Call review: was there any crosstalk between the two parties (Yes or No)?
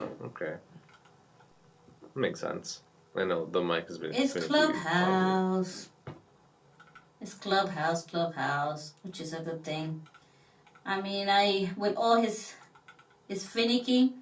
Yes